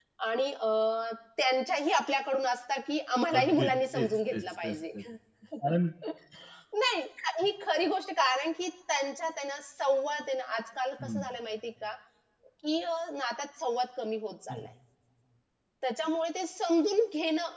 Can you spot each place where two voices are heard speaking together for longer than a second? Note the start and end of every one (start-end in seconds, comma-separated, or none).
3.4-4.8